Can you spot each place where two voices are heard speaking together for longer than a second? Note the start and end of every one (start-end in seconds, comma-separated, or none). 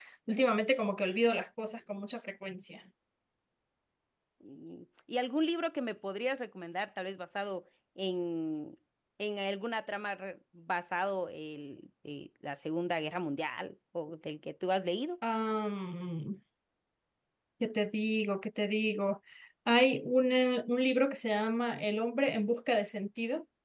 none